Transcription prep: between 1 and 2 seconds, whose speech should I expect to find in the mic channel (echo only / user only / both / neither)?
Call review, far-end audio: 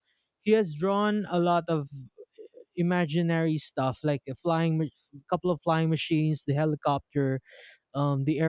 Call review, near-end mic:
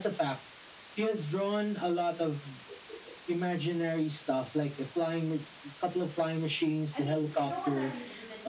echo only